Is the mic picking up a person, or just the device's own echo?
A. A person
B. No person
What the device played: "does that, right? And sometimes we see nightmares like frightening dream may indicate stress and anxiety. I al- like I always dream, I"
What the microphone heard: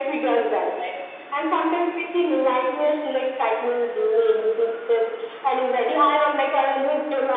B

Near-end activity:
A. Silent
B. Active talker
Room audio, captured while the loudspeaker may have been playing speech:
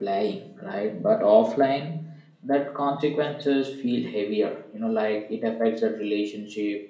B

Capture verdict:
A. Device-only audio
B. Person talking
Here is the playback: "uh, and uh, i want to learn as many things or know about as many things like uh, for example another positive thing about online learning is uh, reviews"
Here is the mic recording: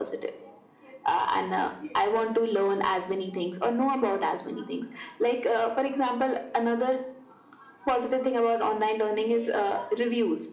A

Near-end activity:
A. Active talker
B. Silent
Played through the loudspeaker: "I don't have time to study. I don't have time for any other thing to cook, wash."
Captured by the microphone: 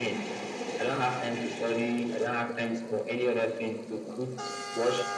B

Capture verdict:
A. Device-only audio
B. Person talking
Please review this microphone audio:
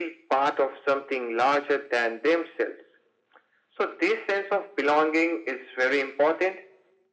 A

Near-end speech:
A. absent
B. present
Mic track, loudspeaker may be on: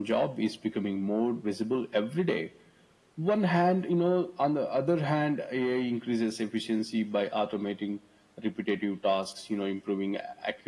A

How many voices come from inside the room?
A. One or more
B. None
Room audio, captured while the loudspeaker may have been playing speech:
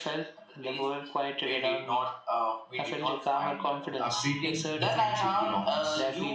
A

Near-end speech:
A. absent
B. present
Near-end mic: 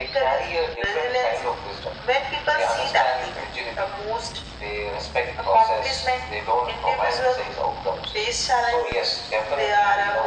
A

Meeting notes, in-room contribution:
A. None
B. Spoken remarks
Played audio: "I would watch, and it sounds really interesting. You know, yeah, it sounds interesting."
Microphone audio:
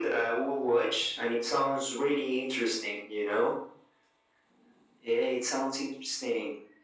A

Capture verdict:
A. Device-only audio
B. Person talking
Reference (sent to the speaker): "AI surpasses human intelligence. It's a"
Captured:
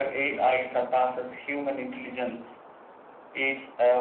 A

